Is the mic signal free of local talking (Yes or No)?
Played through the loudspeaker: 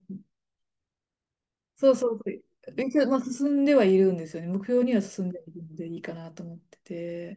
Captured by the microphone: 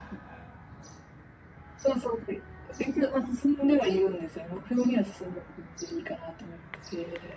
Yes